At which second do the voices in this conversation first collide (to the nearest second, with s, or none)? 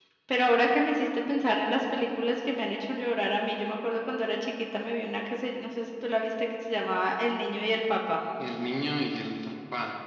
none